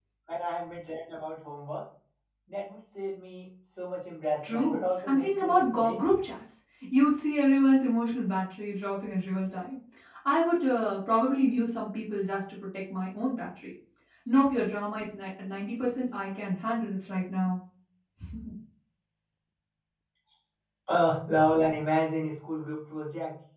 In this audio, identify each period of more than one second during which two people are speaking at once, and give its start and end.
4.4-6.2

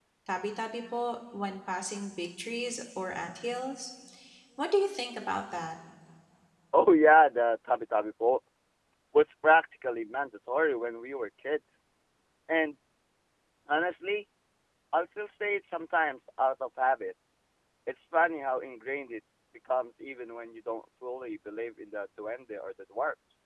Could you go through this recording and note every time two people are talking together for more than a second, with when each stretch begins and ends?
none

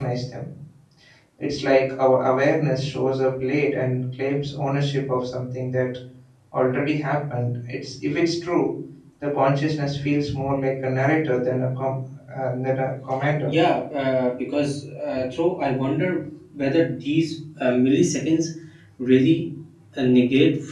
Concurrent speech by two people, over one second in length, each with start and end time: none

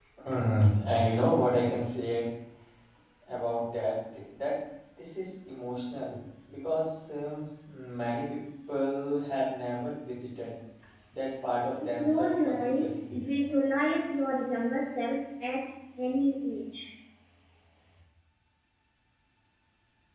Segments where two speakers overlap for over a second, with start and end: 11.8-13.2

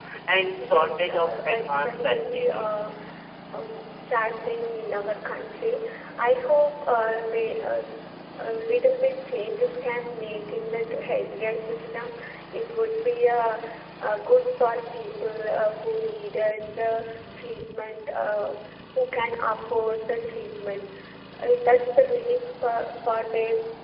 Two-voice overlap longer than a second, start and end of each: 0.6-2.8

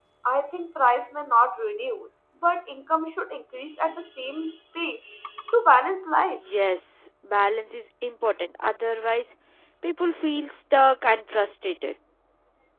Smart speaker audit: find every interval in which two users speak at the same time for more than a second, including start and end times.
none

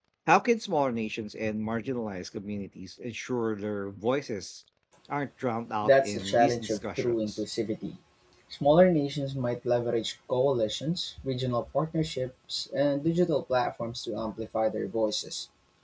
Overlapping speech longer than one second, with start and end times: 5.8-7.4

